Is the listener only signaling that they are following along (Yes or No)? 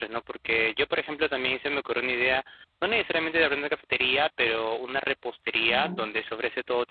Yes